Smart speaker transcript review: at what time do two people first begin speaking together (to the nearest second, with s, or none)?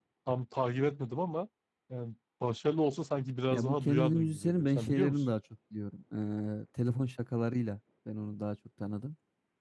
4 s